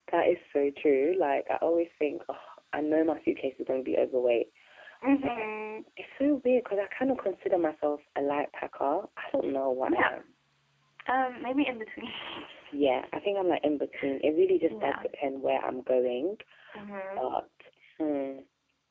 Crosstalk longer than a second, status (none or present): none